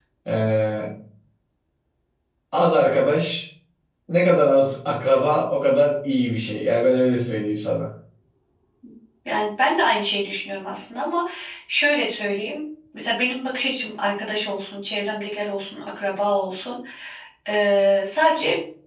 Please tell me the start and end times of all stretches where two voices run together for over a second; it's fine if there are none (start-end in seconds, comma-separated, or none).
none